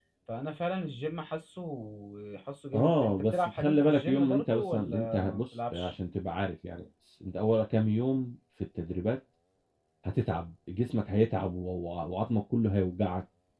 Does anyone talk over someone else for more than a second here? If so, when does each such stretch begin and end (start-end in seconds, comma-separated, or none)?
2.7-5.9